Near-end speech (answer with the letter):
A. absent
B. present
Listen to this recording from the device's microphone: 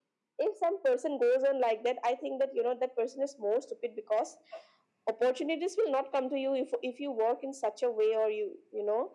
A